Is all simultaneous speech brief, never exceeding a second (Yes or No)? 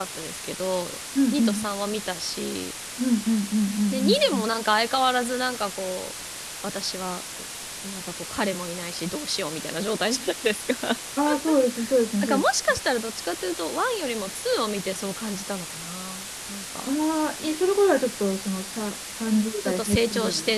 No